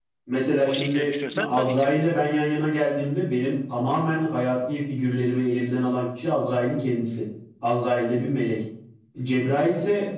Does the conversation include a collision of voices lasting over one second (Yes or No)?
Yes